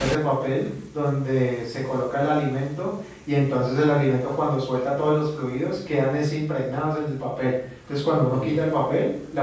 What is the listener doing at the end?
listening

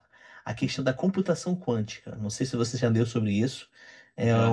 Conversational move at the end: listening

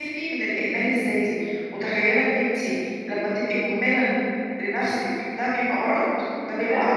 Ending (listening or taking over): listening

